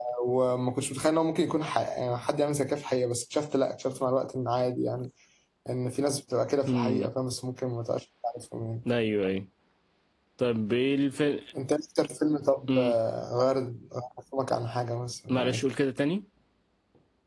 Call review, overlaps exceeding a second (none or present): none